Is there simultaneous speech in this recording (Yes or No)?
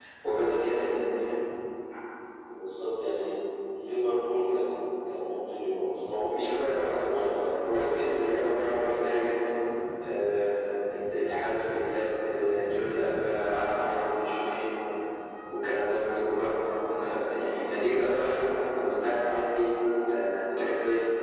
Yes